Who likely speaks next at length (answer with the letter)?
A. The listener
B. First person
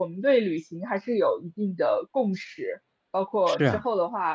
B